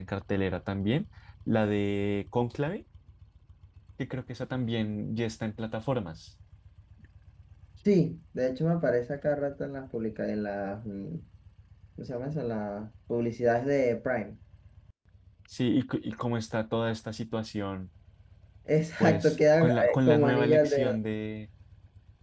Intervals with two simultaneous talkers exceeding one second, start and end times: 19.0-21.0

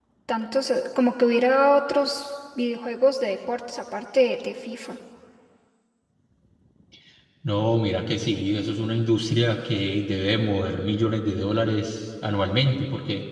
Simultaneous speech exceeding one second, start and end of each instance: none

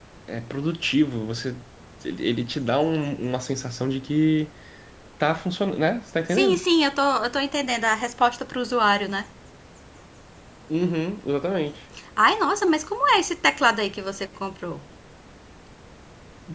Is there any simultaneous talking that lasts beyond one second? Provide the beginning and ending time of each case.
none

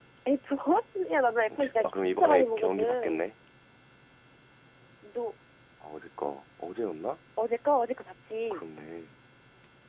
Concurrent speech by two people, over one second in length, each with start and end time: 1.6-3.2

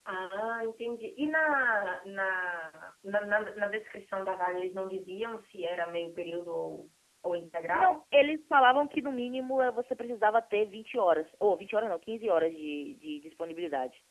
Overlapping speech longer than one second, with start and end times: none

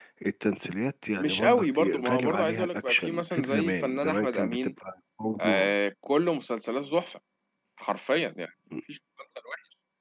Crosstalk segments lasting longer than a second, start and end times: 1.2-4.7

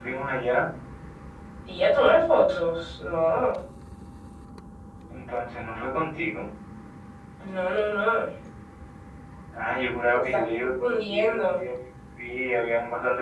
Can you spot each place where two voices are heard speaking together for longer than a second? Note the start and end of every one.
10.1-11.6

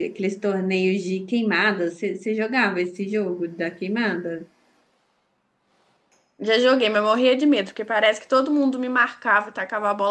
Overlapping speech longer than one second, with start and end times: none

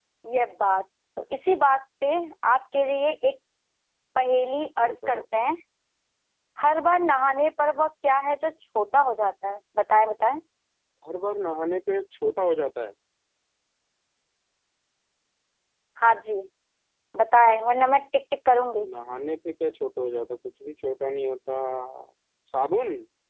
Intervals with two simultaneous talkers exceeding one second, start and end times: none

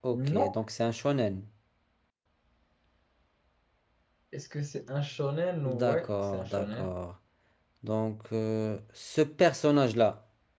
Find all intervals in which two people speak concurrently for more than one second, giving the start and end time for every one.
5.7-6.9

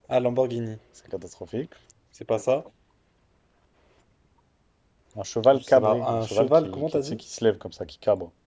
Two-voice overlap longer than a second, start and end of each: 5.5-7.2

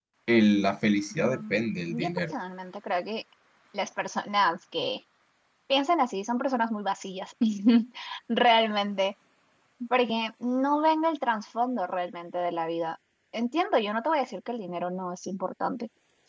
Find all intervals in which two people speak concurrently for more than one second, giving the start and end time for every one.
1.1-2.3

